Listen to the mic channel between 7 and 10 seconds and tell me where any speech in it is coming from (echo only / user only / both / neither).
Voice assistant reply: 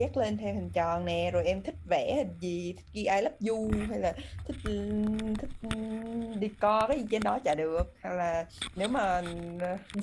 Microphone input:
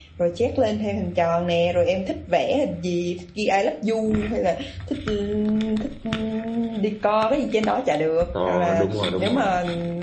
both